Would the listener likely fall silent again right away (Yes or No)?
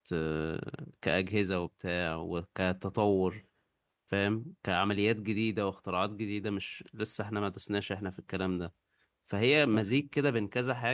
Yes